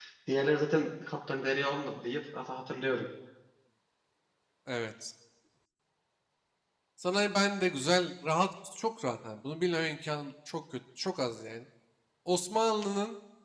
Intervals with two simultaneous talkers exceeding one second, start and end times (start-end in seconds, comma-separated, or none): none